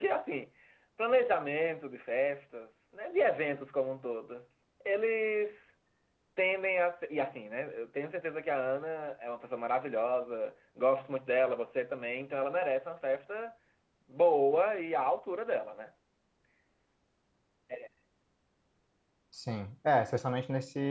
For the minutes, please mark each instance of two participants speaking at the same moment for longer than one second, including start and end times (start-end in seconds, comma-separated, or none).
none